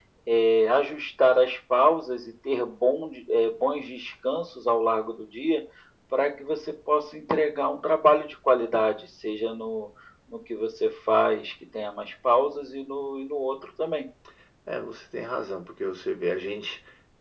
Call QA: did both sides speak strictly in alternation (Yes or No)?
Yes